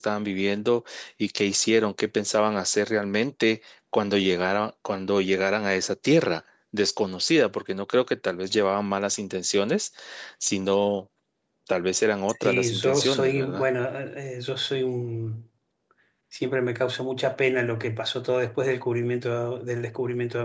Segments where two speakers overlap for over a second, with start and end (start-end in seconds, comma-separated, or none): 12.4-13.7